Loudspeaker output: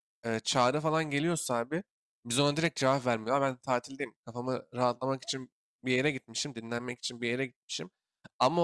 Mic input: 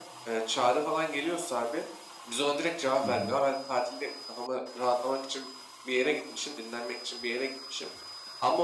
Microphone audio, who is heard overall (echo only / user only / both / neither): both